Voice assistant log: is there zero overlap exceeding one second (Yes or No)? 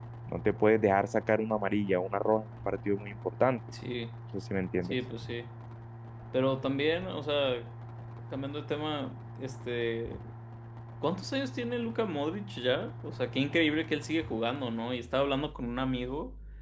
Yes